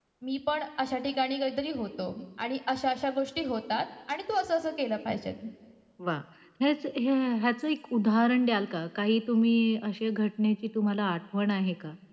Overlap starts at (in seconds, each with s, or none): none